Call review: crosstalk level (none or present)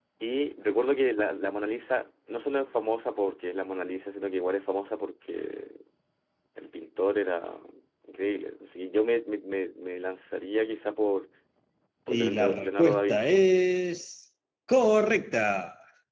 present